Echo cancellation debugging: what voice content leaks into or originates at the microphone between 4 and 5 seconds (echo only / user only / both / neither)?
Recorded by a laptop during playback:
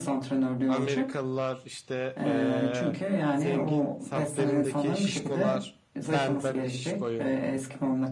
both